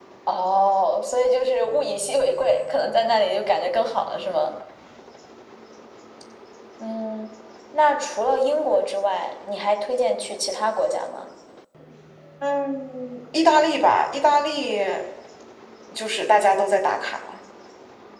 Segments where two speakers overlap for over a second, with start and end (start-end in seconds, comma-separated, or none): none